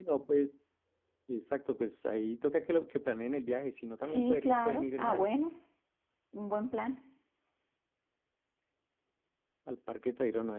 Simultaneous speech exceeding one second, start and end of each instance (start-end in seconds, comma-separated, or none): 4.1-5.3